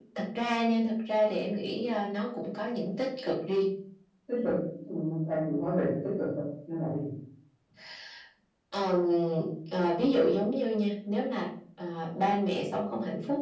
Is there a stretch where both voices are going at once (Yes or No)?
No